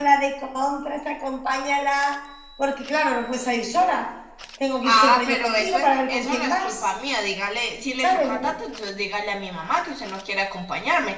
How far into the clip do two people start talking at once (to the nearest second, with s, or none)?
5 s